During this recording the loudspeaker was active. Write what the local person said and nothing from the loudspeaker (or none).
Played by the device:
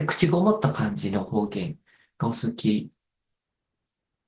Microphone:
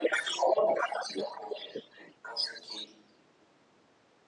none